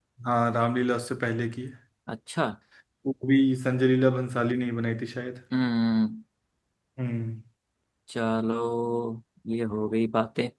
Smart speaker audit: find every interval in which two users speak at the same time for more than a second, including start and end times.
none

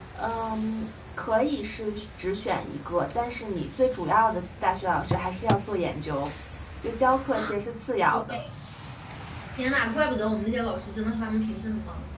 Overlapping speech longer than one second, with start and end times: none

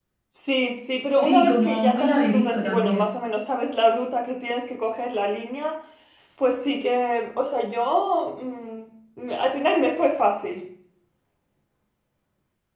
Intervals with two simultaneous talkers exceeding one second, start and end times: 1.1-3.1

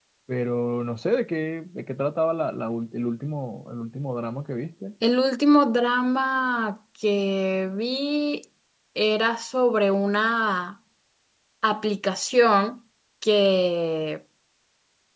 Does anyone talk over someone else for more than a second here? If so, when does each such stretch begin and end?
none

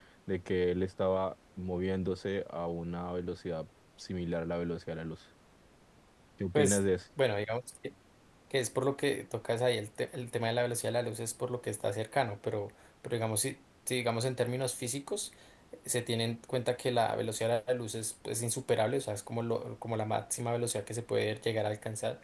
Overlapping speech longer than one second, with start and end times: none

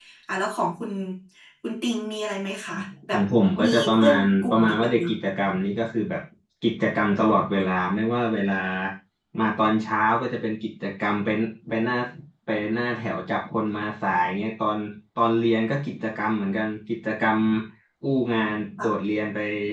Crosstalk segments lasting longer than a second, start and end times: 3.6-5.2

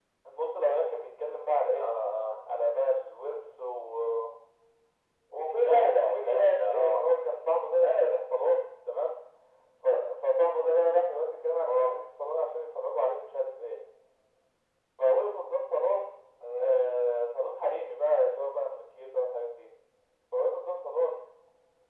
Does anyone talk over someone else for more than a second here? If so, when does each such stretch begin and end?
5.5-7.1

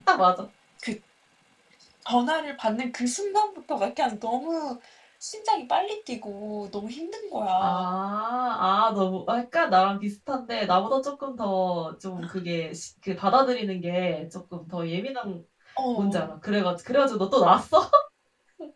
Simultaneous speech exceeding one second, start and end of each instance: none

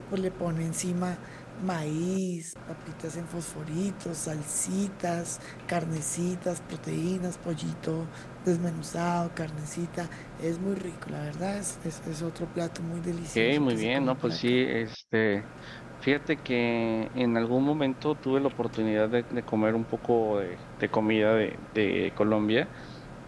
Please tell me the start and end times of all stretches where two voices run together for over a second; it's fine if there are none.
13.4-14.6

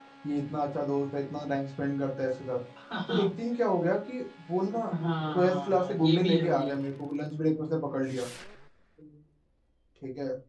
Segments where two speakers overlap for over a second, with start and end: 5.3-6.7

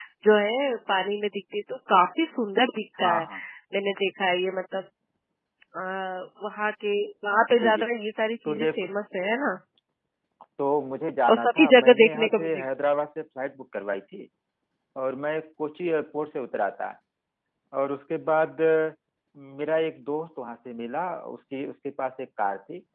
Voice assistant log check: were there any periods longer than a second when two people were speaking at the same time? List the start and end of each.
11.3-12.6

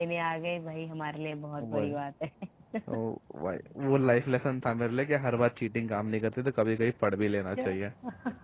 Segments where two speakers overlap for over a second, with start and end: none

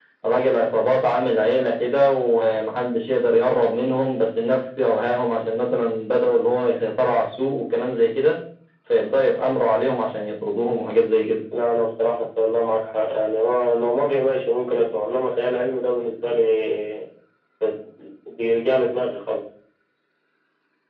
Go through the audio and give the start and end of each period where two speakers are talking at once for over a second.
none

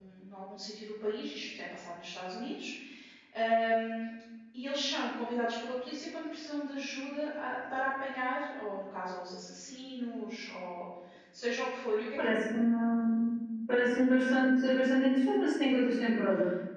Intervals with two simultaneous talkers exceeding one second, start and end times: none

